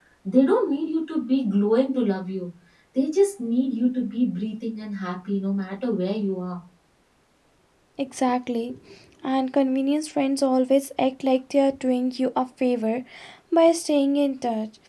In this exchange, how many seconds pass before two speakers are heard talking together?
none

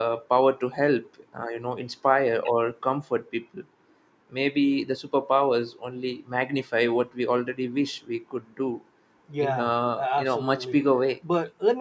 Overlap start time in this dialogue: 9.4 s

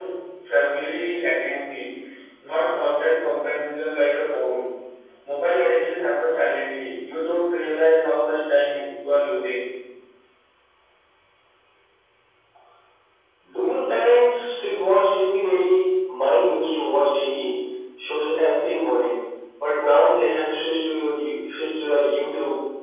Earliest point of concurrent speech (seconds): none

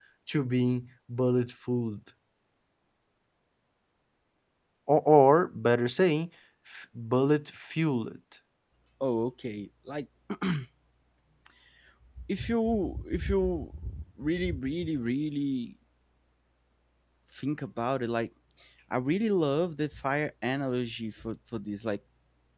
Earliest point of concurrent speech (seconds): none

